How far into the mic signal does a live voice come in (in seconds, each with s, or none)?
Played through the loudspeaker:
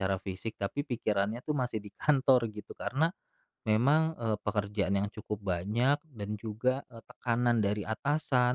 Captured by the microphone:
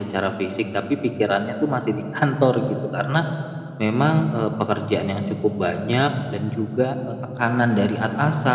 none